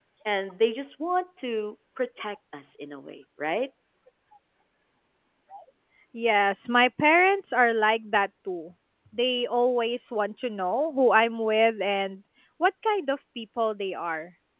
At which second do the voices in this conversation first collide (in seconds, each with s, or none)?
none